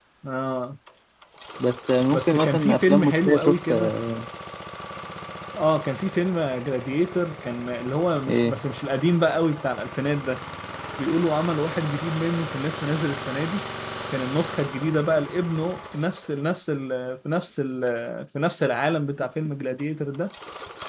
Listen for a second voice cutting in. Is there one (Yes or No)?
Yes